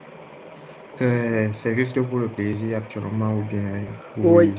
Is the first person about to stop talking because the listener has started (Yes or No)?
Yes